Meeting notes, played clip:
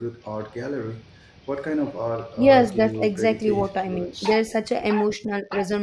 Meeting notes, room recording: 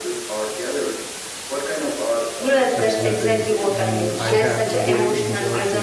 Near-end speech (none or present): present